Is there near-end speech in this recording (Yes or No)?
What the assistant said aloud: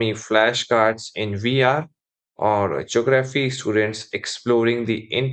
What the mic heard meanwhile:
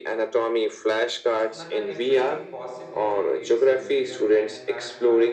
Yes